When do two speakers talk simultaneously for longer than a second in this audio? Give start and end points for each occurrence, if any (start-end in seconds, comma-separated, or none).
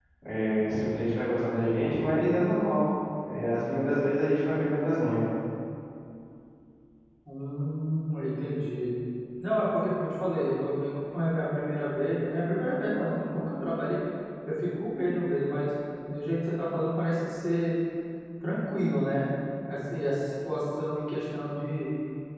none